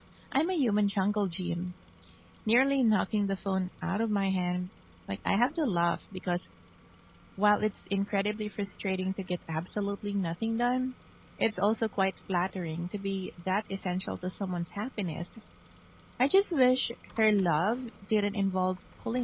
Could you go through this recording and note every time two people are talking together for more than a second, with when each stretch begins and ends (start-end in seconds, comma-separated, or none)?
none